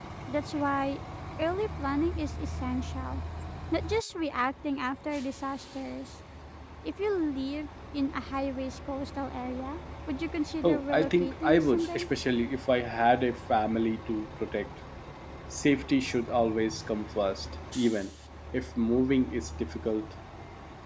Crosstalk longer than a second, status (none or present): present